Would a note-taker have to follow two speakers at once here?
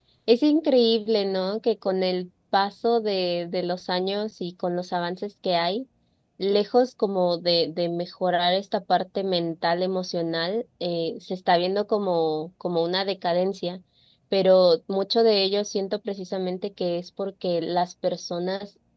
No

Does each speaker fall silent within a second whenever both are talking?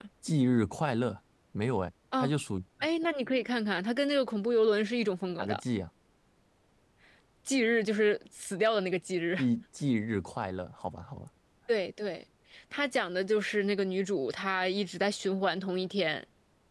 Yes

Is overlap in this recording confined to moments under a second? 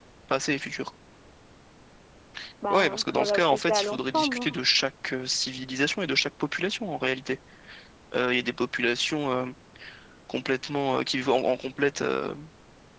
No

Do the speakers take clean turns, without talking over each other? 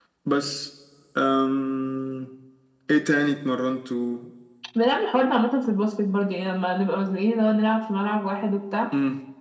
Yes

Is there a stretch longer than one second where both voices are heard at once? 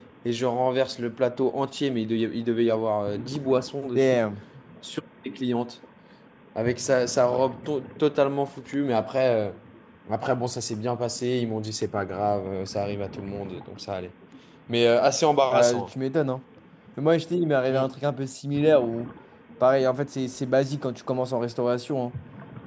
No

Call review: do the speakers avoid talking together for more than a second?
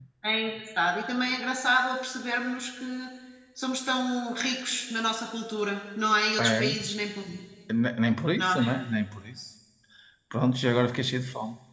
Yes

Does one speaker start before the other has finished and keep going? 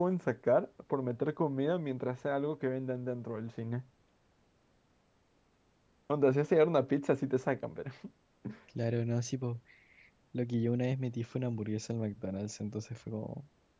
No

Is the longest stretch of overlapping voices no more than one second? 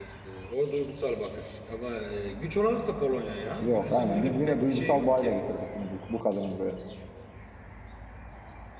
No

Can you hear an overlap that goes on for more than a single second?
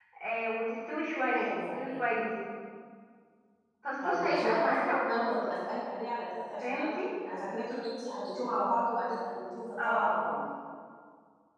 Yes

